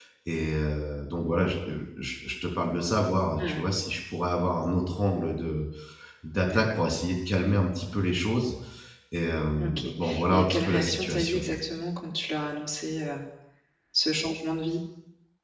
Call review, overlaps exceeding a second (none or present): present